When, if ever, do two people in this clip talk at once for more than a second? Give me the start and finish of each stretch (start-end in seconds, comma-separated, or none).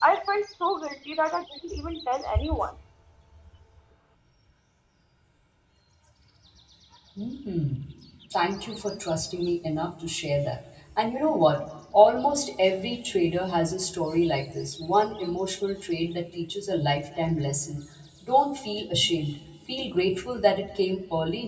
none